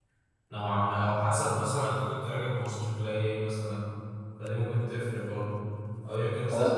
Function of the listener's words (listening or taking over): listening